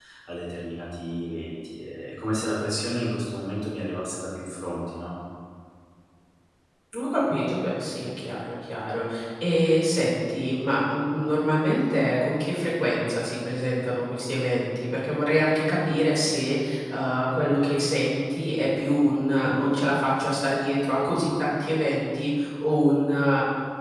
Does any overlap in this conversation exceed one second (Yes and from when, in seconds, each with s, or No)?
No